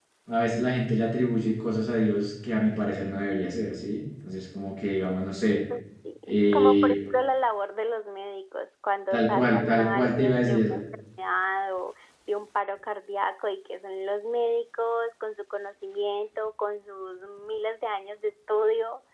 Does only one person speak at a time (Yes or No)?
No